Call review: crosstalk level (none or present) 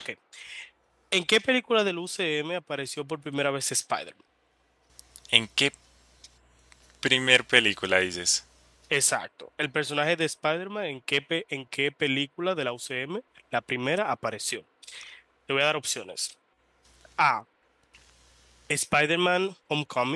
none